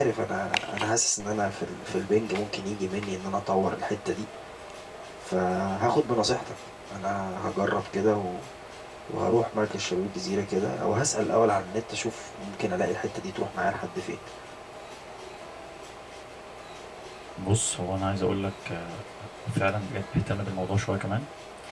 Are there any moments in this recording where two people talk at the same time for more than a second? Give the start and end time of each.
none

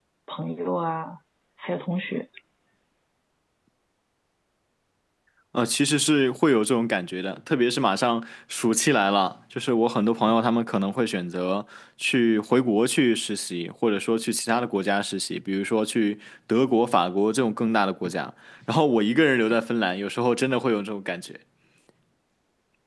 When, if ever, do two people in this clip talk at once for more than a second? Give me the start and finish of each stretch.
none

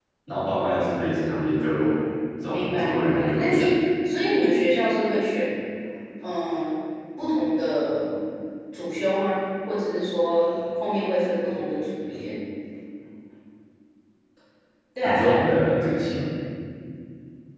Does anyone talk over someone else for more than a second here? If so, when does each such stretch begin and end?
2.5-3.8

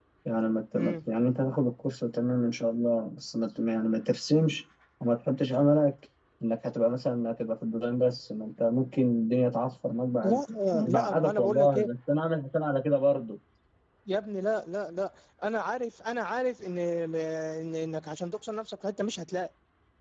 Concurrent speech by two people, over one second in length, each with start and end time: 10.2-11.9

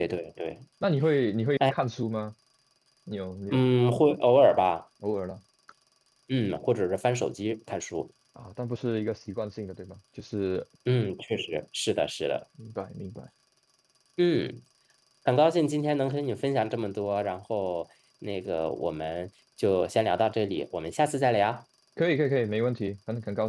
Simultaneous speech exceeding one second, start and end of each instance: none

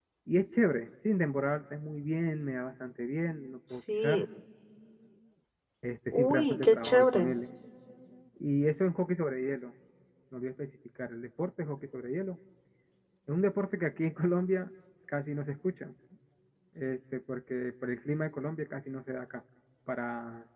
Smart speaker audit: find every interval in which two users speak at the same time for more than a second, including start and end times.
6.1-7.3

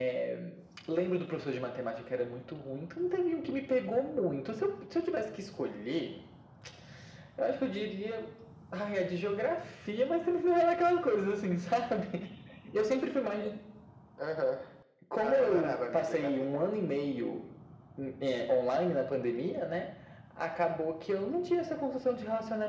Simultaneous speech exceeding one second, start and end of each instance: 15.2-16.7

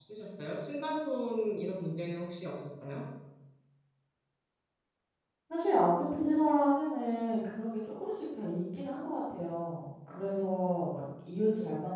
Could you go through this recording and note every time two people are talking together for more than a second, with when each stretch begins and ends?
none

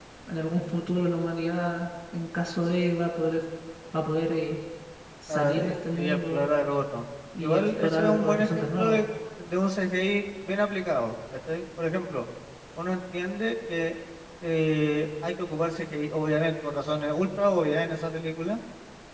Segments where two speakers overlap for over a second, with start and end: 5.3-6.5, 7.4-9.0

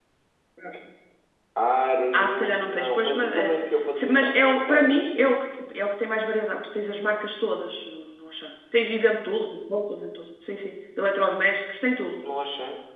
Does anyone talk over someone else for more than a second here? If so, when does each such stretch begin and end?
2.1-3.5, 4.0-5.3

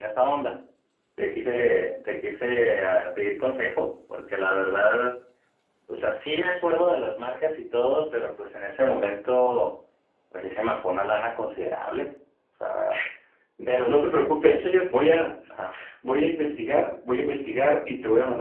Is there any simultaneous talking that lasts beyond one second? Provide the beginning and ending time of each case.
13.9-15.2

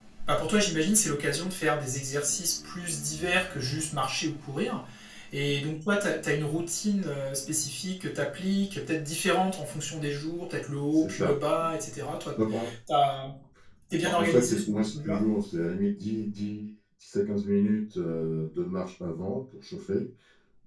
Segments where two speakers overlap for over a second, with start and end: 14.0-15.2

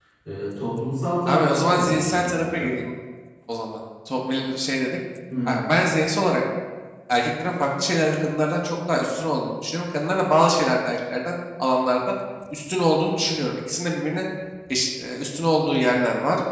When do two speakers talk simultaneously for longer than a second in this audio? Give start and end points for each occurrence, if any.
1.3-2.7

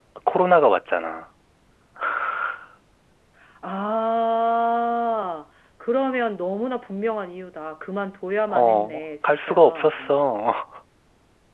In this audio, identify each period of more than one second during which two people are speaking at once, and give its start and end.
8.5-9.9

